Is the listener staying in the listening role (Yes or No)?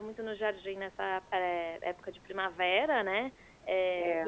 Yes